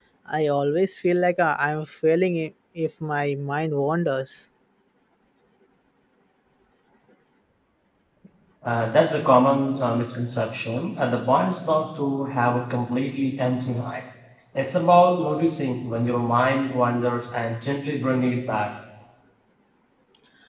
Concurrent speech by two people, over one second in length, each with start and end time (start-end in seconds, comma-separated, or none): none